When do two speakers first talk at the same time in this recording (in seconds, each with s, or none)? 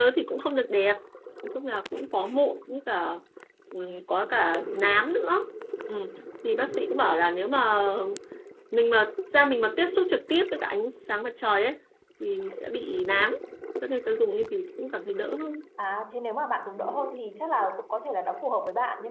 none